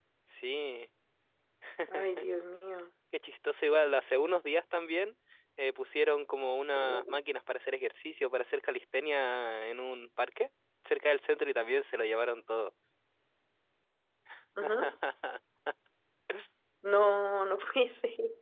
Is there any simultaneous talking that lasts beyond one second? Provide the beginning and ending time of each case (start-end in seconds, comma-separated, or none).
none